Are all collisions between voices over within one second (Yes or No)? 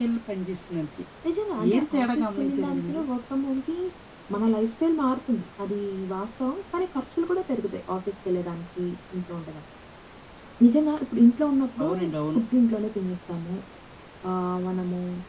No